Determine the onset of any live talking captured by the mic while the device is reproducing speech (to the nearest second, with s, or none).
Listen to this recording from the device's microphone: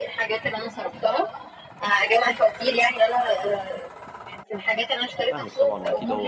5 s